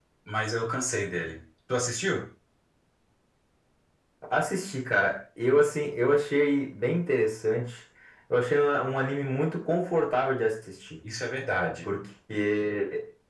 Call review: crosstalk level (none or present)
none